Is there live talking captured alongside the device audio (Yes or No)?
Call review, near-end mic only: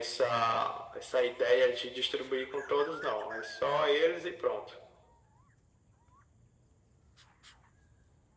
No